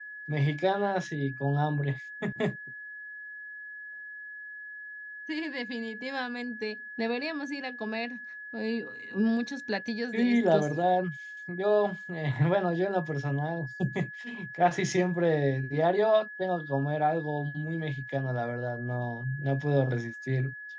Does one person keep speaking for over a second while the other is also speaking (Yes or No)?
No